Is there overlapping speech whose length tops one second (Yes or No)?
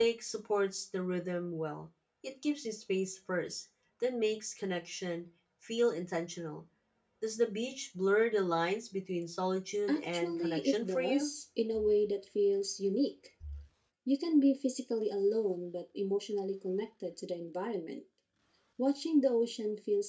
Yes